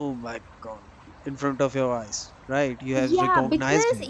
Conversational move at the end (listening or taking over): taking over